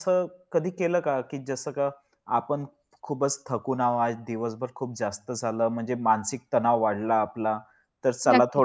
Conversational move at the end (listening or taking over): listening